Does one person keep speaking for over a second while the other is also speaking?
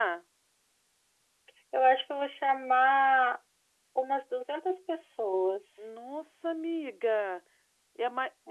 No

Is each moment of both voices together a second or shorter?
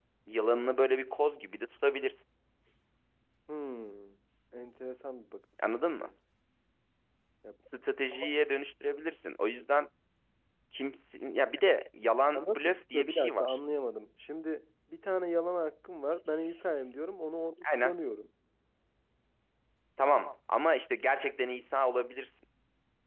No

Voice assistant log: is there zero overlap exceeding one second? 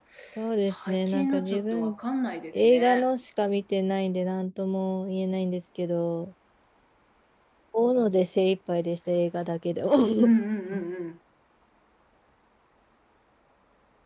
No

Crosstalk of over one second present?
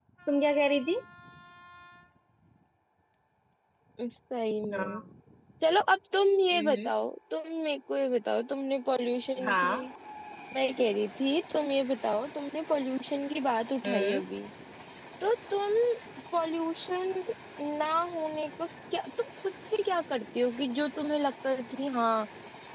No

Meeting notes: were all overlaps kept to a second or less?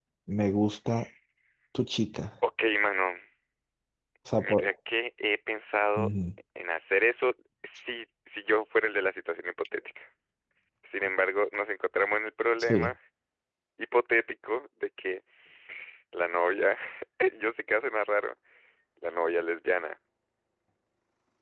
Yes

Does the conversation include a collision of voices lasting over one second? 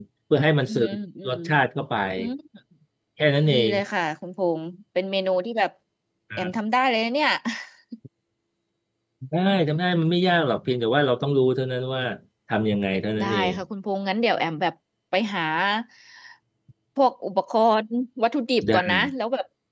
No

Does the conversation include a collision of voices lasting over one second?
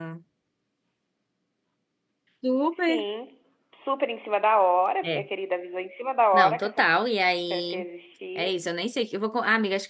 No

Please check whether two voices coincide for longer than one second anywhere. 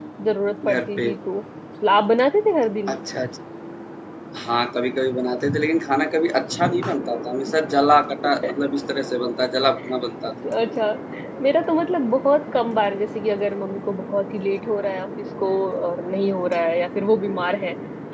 No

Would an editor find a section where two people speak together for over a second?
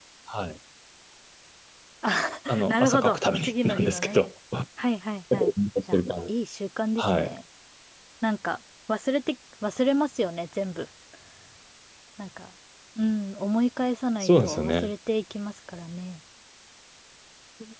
Yes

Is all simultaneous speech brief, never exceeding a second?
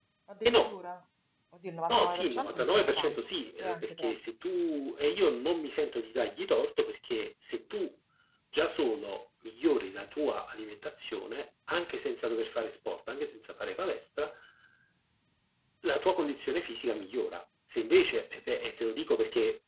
No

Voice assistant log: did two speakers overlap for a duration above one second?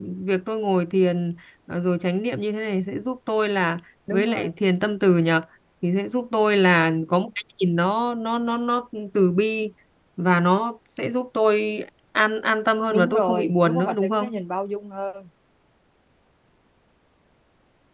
Yes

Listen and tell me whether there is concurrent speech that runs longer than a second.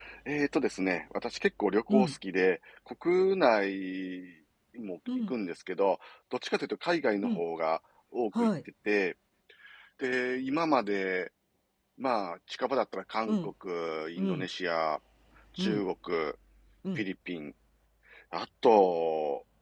No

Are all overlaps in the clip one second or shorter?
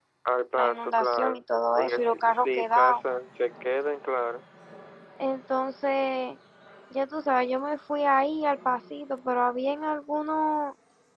No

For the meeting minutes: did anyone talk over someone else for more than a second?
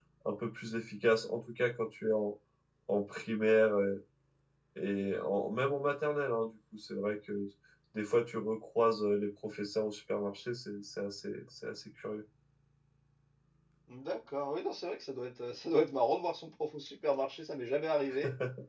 No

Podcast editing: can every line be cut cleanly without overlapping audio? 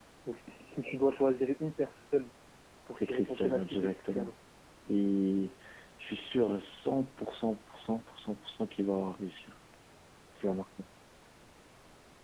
No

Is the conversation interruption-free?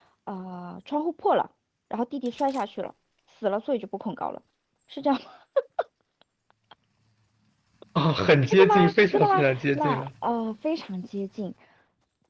No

